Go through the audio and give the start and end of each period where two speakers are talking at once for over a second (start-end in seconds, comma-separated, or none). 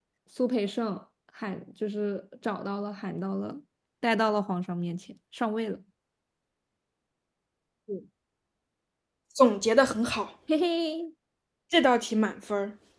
none